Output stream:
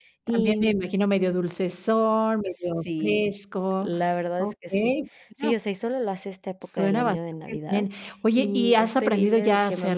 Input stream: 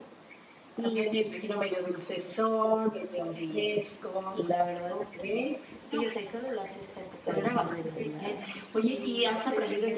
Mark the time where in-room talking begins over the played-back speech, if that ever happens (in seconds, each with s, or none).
none